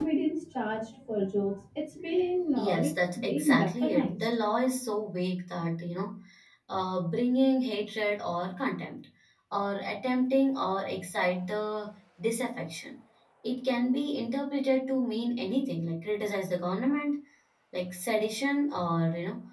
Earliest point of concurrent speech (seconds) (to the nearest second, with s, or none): 3 s